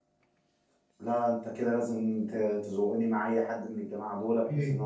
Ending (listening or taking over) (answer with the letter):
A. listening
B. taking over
B